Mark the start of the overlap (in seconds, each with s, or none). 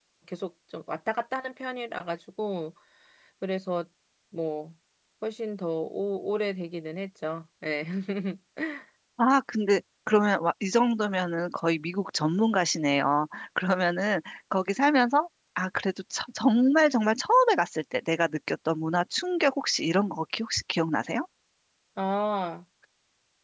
none